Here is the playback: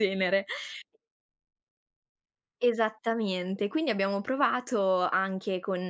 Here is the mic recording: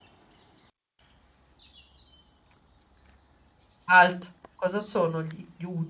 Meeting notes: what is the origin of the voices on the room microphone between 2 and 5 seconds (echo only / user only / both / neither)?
user only